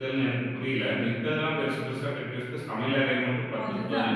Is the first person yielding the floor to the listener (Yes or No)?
No